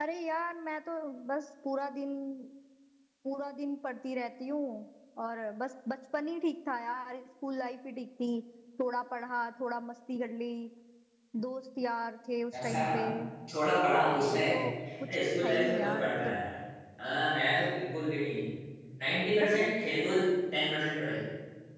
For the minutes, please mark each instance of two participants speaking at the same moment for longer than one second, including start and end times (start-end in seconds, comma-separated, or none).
15.1-16.3